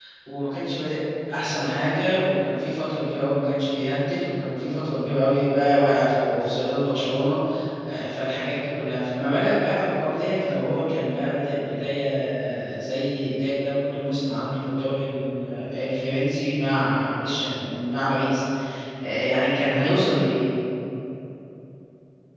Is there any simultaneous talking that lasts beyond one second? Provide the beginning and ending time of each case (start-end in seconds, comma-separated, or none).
none